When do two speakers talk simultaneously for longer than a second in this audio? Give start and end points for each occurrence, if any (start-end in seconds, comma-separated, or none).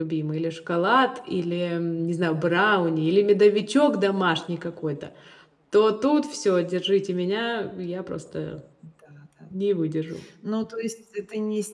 none